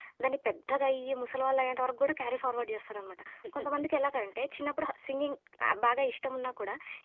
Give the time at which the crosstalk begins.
none

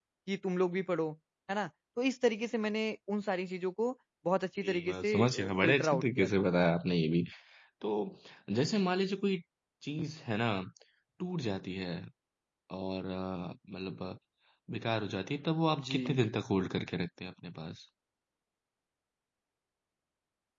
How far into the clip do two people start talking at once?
5 s

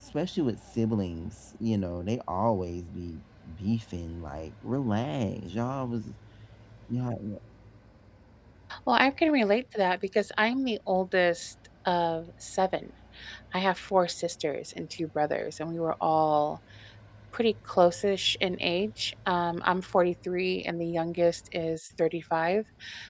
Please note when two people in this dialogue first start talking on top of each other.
none

